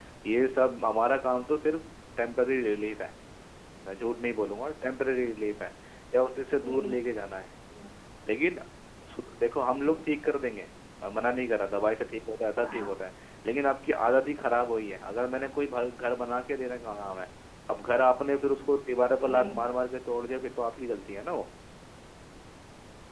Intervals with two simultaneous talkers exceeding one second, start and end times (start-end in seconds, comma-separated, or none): none